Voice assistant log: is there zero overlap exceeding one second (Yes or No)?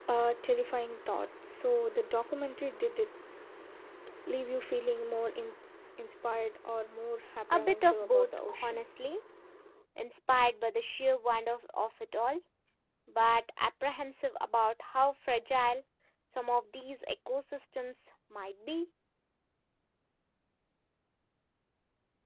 No